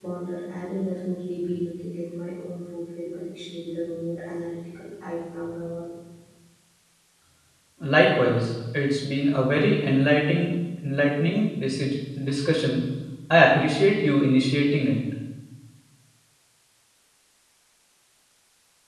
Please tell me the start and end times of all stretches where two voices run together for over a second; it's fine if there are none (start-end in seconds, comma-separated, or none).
none